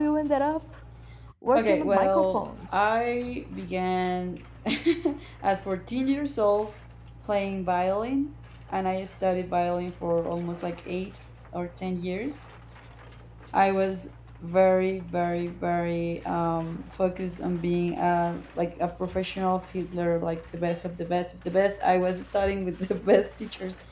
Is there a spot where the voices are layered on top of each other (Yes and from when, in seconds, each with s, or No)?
Yes, from 1.6 s